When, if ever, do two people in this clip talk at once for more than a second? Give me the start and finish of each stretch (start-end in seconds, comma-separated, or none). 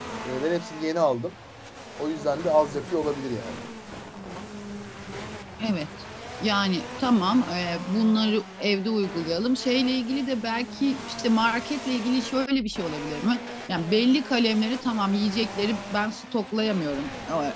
none